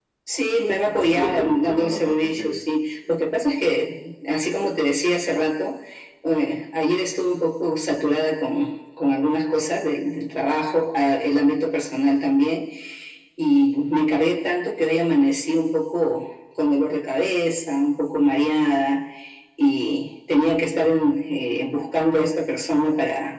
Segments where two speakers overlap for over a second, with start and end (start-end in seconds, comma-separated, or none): 1.0-2.6